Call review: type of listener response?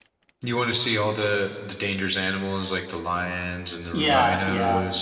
taking over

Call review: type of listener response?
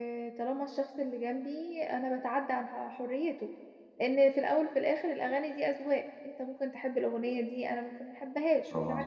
taking over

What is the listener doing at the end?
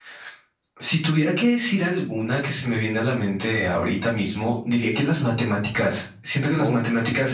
listening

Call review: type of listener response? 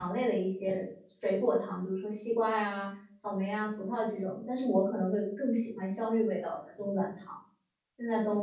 taking over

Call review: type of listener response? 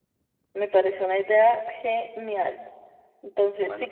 listening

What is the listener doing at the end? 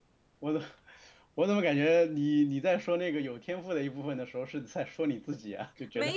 taking over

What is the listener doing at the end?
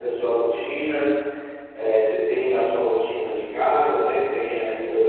listening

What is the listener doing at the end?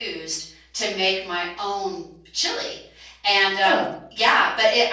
listening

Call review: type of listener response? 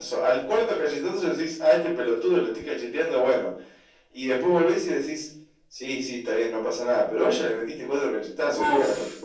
taking over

